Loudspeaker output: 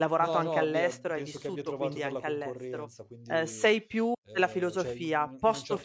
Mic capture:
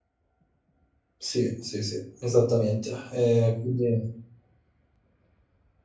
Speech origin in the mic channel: user only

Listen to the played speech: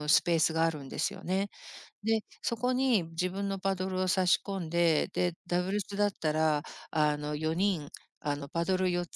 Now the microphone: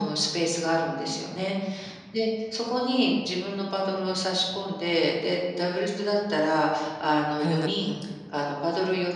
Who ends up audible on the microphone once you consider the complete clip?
both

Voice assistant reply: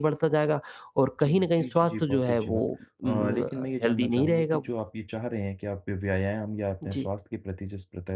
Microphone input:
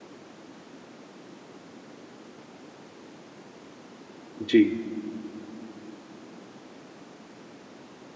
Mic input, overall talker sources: user only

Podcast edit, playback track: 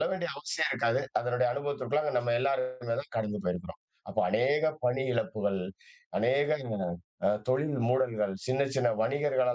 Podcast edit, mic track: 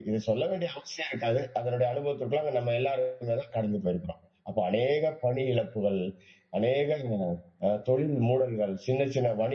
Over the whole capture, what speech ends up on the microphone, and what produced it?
echo only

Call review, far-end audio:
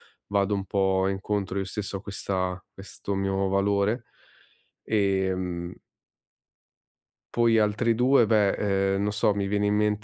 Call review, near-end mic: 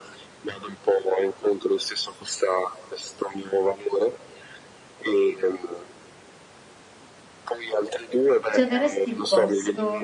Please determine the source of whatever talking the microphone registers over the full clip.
both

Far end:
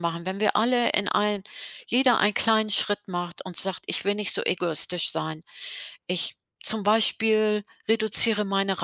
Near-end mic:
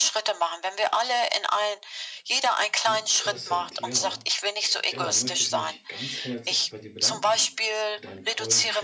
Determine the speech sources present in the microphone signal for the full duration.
both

